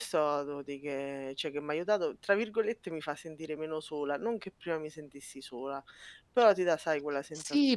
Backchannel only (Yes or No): No